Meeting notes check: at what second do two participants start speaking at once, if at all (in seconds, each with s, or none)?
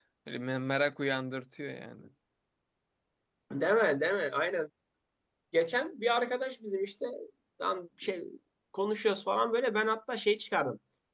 none